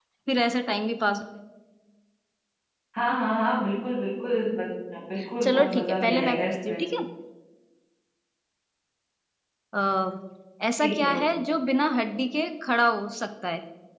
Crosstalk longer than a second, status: present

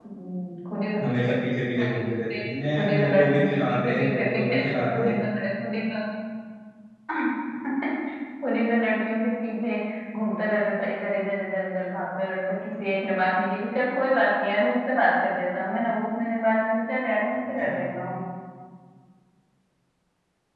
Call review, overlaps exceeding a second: present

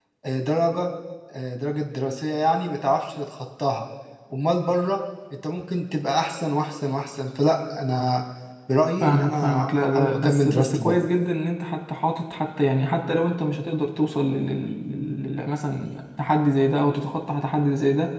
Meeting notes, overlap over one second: present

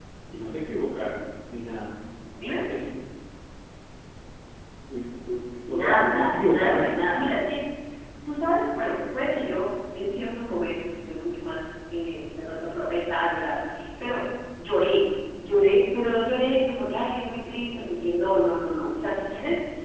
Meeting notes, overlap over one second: present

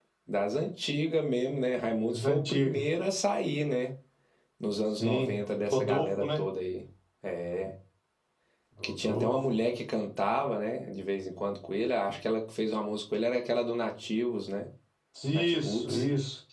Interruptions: present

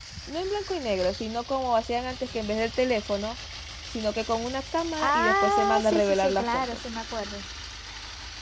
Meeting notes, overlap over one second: present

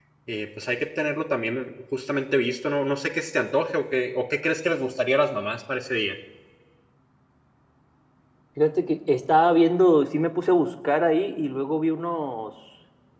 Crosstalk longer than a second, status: none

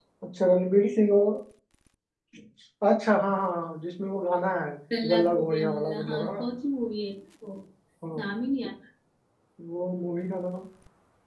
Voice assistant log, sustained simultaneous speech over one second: present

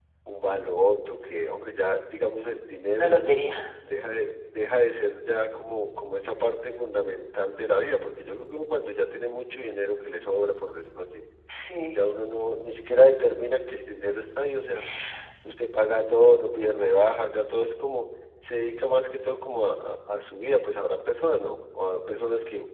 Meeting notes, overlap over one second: none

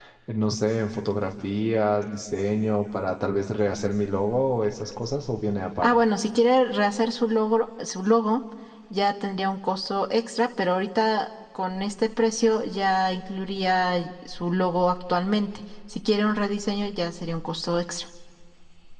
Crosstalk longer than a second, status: none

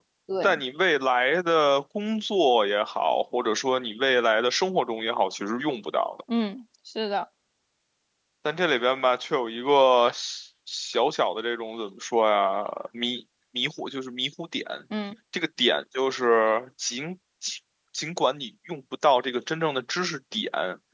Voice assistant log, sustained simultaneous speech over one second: none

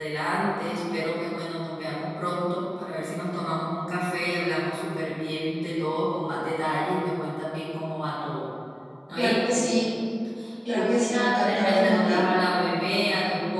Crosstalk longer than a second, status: present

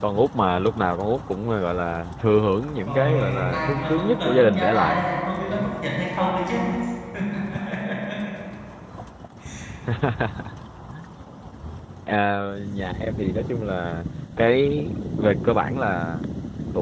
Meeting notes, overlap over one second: present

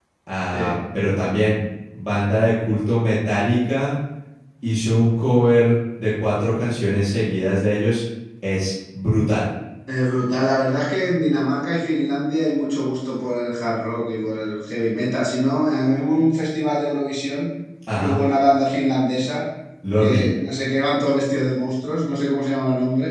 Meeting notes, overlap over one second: none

